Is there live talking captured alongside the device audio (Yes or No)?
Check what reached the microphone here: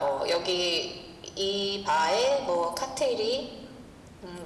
No